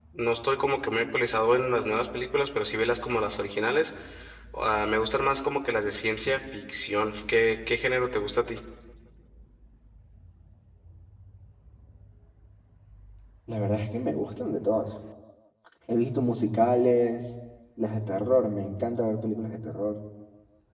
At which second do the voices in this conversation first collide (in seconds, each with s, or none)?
none